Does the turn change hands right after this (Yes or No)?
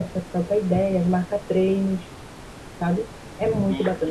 Yes